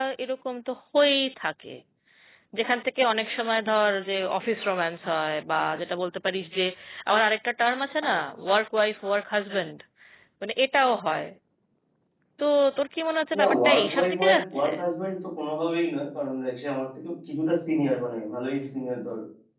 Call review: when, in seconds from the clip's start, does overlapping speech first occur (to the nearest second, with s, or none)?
13 s